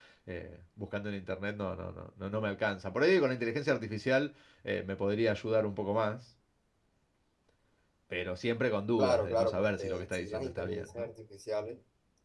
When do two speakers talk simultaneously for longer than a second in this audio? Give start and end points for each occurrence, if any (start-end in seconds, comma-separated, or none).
9.0-11.1